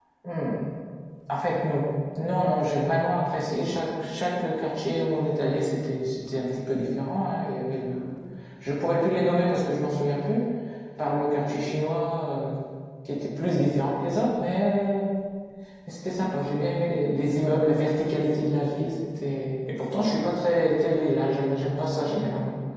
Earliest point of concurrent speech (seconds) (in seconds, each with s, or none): none